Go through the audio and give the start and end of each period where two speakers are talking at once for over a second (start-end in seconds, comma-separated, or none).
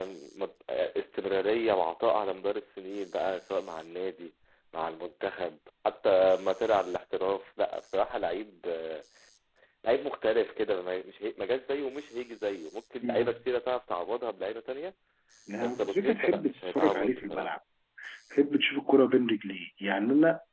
15.6-17.5